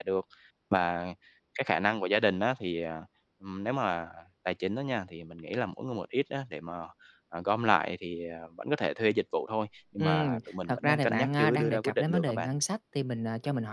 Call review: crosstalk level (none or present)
present